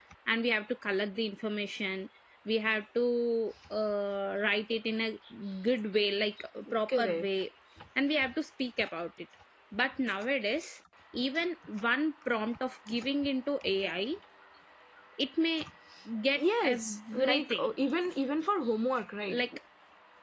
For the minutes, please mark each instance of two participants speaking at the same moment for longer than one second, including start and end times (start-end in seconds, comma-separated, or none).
16.4-17.7